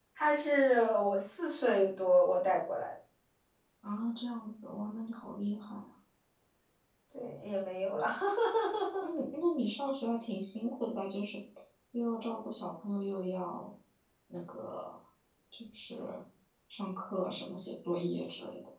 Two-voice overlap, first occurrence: none

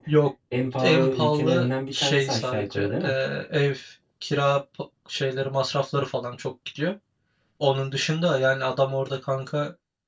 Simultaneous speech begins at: 0.8 s

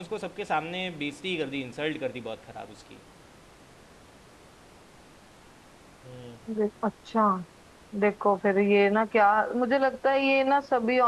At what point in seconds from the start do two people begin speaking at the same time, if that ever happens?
none

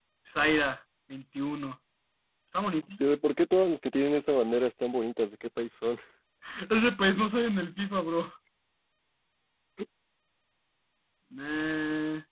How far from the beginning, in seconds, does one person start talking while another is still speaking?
none

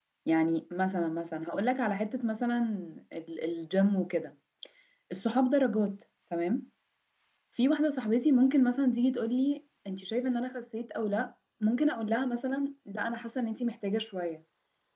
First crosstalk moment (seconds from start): none

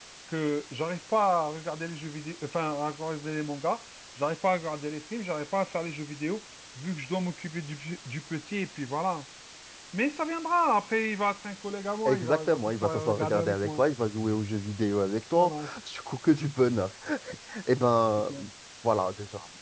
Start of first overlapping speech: 12.1 s

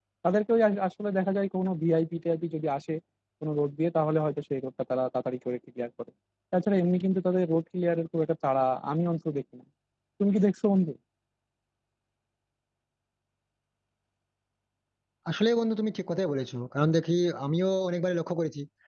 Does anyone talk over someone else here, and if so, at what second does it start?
none

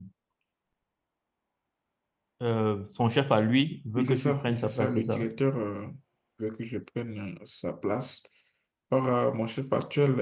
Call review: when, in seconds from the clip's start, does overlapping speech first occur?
4.0 s

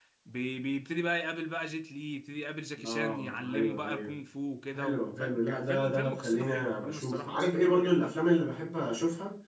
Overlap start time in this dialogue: 2.9 s

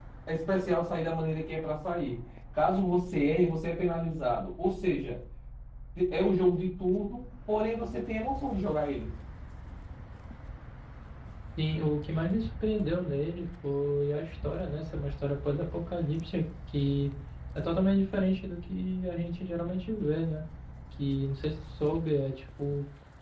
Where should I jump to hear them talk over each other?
none

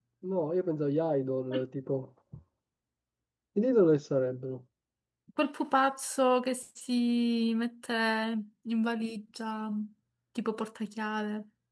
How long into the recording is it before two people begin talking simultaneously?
none

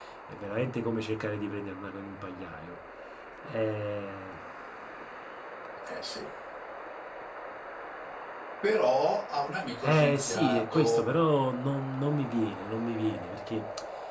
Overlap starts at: 9.8 s

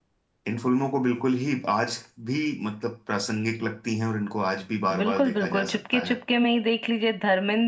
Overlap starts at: 4.9 s

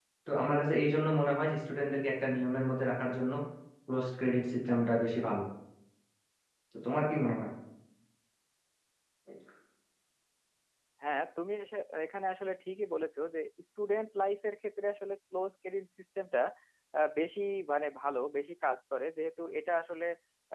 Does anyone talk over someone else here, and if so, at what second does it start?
none

